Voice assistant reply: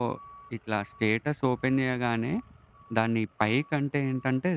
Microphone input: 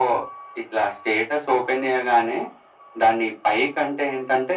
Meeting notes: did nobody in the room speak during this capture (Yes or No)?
Yes